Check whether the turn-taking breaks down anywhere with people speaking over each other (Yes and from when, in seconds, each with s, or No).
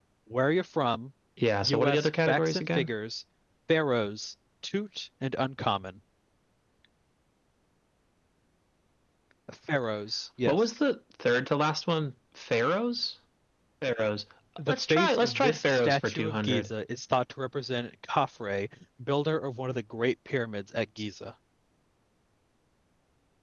Yes, from 1.6 s